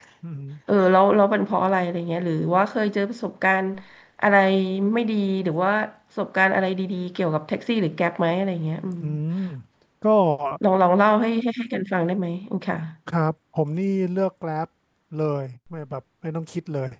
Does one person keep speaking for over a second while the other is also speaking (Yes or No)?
No